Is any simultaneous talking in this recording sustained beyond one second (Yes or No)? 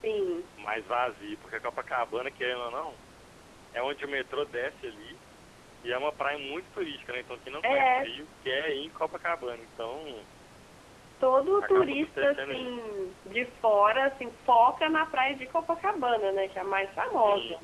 Yes